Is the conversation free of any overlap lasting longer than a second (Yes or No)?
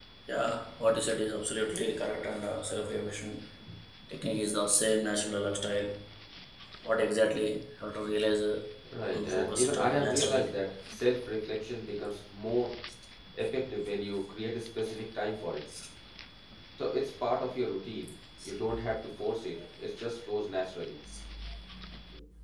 No